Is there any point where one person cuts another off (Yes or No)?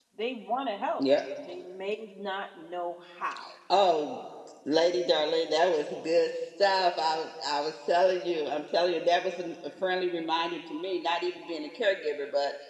No